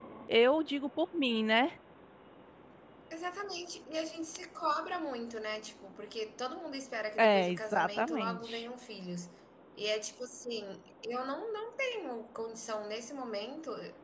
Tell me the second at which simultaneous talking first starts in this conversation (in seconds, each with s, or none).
7.2 s